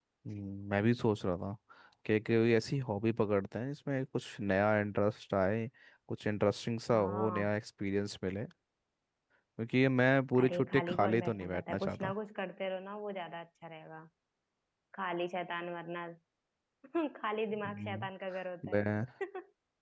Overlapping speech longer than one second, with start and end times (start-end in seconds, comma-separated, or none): 10.4-12.1